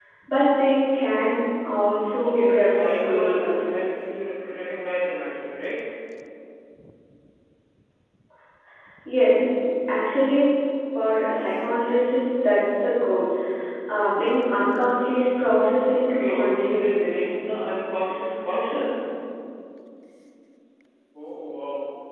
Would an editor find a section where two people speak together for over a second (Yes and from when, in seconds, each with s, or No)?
Yes, from 2.2 s